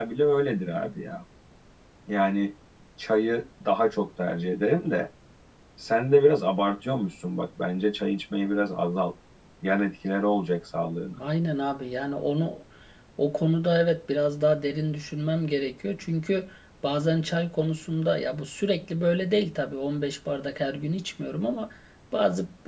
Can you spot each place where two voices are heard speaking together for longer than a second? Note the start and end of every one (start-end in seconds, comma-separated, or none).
none